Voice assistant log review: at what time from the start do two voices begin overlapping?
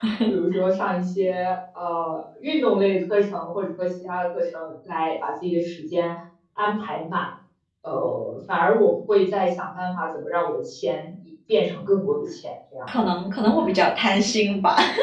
none

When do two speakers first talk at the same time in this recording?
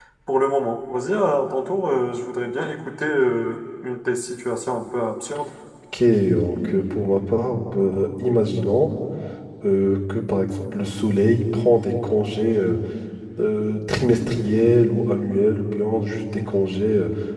none

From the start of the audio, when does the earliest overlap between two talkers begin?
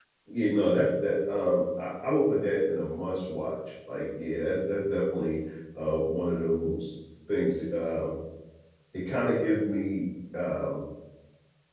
none

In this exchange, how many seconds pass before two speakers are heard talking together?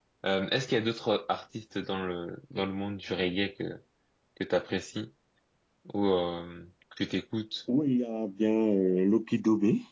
none

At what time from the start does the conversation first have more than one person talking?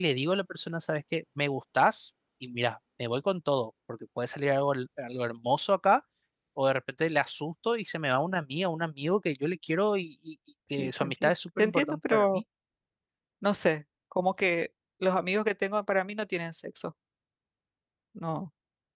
10.8 s

